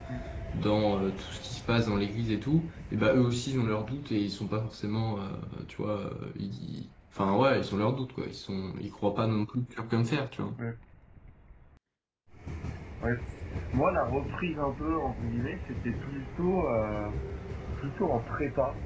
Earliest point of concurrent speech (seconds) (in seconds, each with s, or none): none